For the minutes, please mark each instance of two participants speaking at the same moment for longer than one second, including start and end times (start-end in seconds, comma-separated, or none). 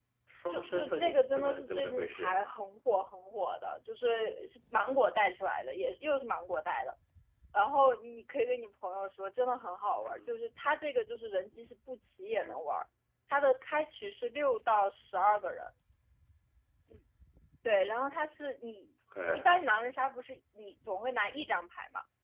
0.5-2.4